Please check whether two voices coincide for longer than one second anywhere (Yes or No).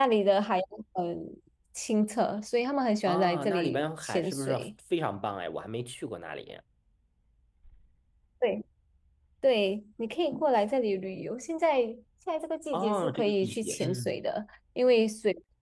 Yes